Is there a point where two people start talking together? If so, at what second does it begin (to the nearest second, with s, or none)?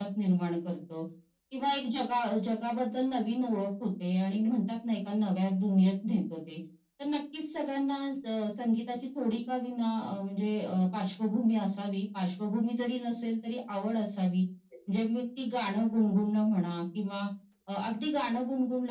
none